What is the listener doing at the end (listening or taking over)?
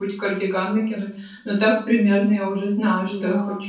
taking over